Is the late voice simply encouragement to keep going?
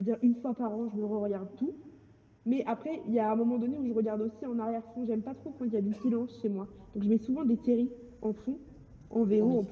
Yes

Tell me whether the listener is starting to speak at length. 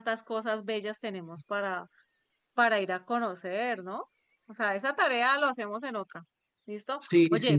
No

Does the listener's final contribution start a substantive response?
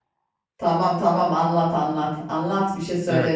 Yes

